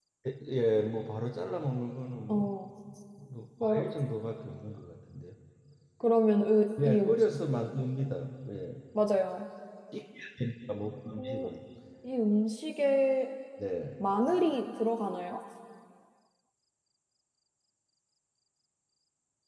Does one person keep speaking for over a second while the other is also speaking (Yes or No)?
No